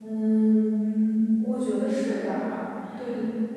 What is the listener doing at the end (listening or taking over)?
taking over